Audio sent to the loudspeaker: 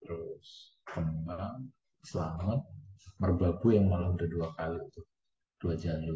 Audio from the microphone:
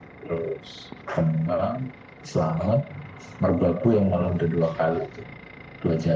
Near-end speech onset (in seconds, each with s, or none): none